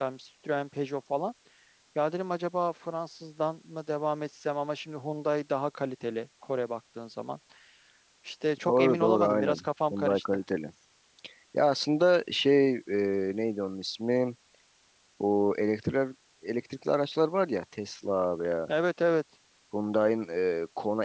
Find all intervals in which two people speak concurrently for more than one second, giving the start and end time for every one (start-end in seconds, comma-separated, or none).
8.7-10.4